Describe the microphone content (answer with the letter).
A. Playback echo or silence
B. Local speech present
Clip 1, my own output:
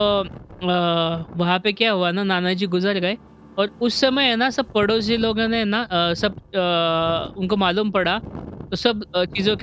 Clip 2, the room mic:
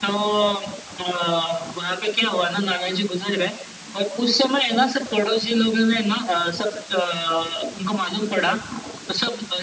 A